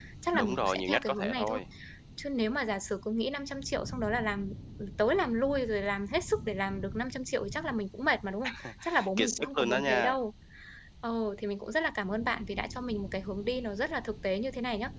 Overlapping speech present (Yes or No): Yes